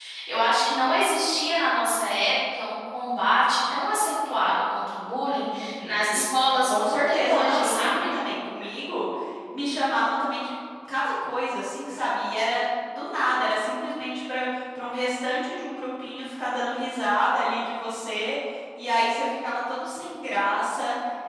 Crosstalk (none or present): present